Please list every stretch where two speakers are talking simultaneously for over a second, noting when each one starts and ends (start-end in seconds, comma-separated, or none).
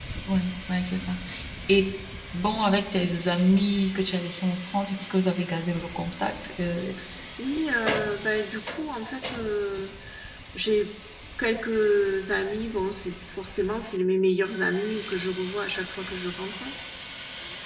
none